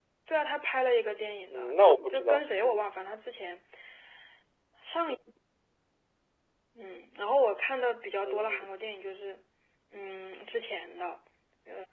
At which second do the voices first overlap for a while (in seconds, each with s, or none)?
1.5 s